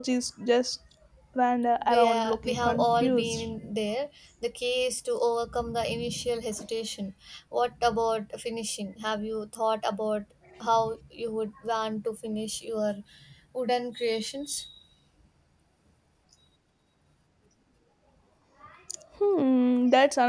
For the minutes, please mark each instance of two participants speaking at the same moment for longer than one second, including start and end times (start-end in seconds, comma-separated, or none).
1.9-3.4